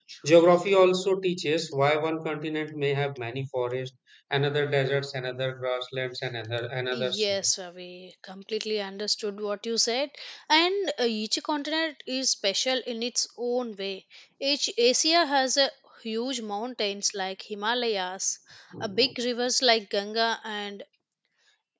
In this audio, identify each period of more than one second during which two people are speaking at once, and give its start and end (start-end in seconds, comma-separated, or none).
none